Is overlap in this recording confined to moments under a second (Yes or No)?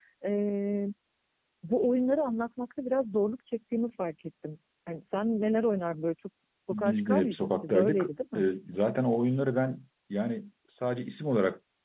No